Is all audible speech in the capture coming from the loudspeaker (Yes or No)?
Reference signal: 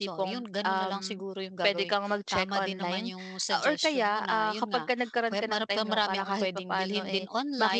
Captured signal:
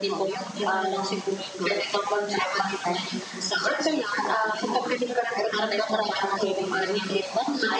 Yes